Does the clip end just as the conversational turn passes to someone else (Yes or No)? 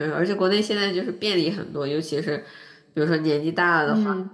No